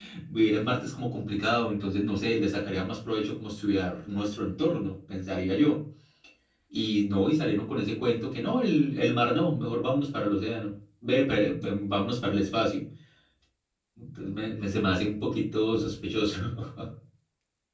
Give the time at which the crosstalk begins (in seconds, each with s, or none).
none